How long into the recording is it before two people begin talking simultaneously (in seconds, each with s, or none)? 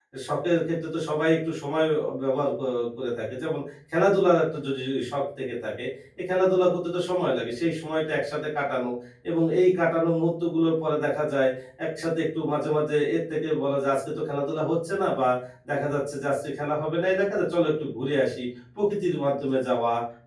none